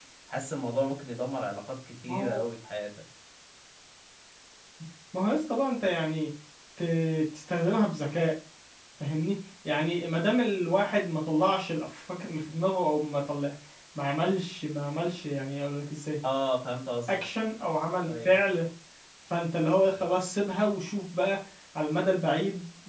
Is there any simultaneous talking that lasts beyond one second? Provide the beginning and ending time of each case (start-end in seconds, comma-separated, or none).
none